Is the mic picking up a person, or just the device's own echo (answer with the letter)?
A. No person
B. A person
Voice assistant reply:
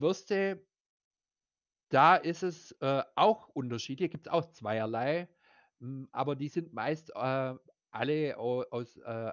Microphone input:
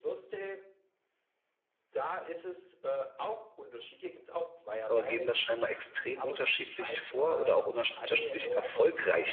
B